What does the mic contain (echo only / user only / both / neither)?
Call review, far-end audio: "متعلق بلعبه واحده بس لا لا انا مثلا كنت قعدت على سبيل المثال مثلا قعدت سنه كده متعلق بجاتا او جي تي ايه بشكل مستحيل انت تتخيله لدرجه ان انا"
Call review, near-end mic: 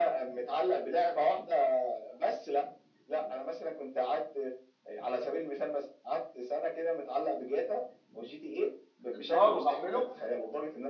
both